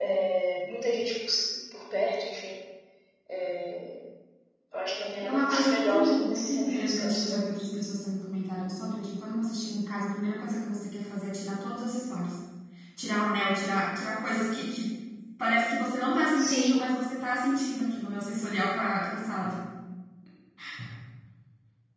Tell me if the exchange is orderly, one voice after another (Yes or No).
No